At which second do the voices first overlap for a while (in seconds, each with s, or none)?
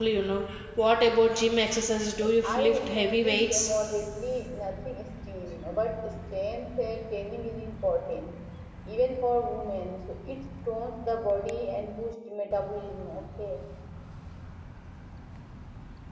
2.4 s